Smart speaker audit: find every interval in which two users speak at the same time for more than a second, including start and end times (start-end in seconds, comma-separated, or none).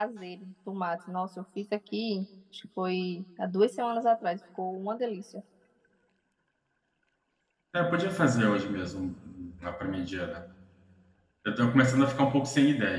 none